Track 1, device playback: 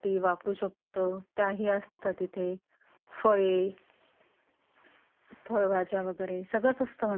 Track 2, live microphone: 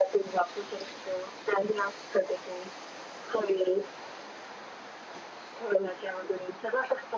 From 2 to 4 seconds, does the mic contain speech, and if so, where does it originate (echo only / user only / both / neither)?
echo only